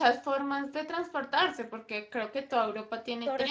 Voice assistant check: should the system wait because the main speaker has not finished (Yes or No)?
No